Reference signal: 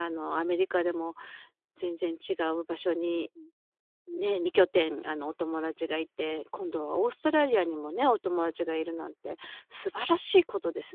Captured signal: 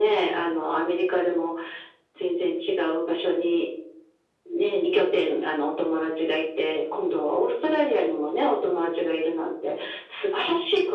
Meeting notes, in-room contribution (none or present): none